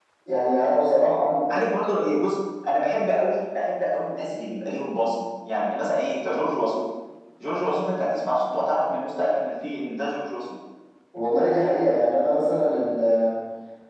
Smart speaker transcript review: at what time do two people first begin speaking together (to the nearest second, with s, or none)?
none